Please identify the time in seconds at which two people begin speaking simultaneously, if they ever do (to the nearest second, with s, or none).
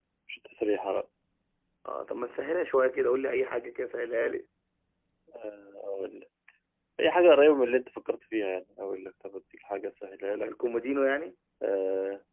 none